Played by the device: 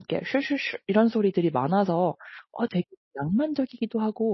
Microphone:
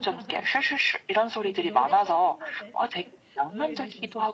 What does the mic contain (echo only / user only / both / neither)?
both